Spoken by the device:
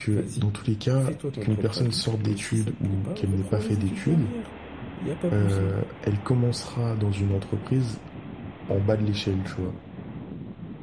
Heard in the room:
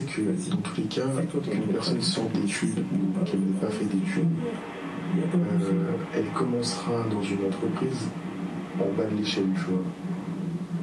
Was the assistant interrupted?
No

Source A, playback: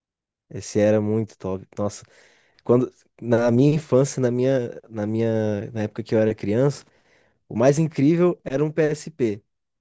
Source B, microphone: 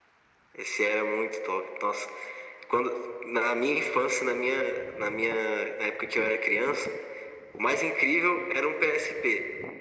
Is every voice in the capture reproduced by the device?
Yes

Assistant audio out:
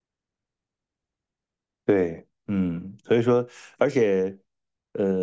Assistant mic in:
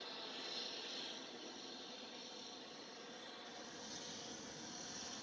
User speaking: No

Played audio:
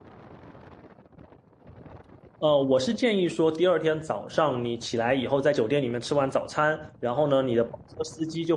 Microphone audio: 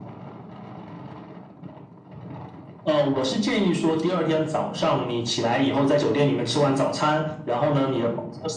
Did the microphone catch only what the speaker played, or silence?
Yes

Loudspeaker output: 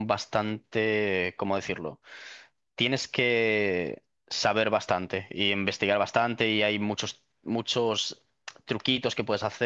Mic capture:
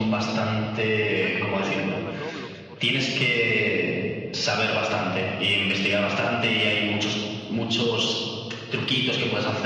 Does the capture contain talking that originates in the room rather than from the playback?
Yes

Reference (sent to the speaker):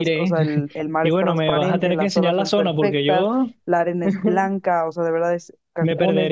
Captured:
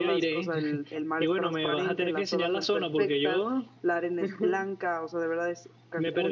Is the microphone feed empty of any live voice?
Yes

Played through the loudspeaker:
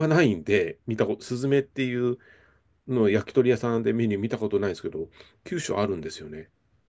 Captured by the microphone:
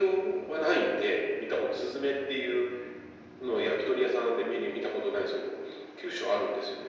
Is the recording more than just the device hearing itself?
No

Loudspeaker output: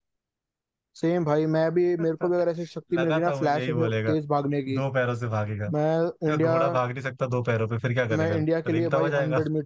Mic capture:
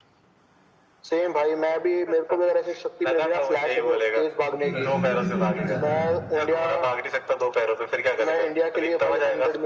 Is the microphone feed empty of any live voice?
No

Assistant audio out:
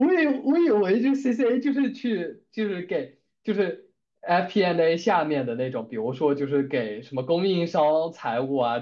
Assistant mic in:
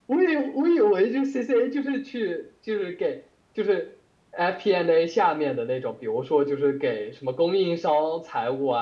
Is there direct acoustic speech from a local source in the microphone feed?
No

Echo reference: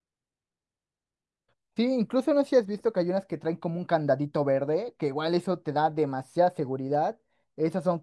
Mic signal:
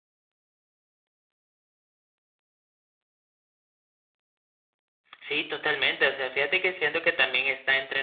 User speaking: Yes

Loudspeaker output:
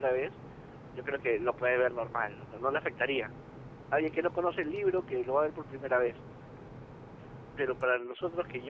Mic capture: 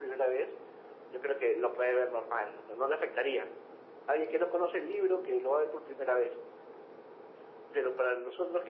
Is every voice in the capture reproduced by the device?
Yes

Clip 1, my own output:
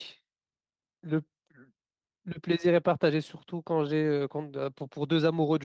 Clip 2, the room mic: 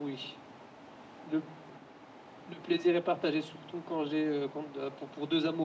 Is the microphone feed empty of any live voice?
Yes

